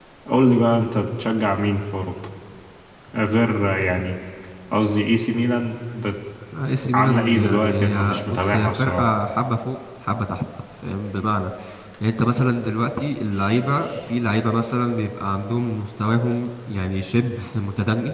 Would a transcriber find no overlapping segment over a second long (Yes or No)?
No